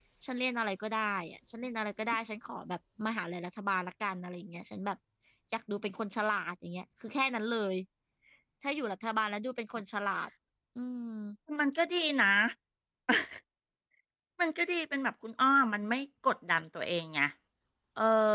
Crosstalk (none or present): none